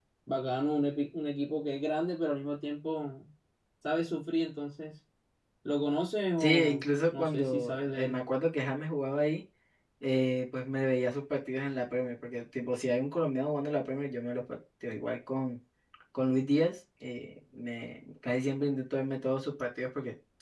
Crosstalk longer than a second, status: present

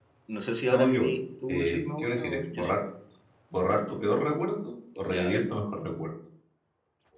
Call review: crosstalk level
present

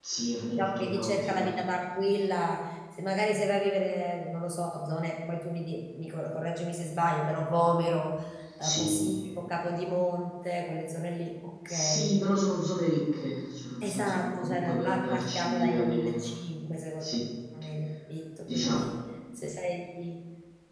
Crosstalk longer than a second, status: present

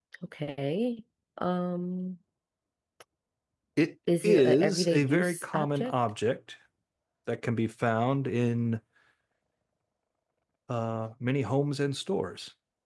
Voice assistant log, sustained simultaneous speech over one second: present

